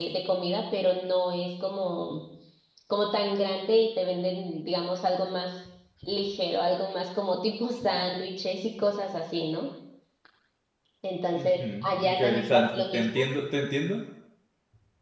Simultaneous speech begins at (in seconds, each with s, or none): 11.3 s